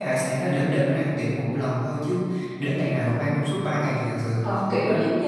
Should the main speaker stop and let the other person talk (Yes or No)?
Yes